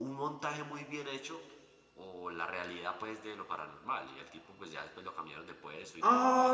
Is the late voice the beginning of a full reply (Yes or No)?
Yes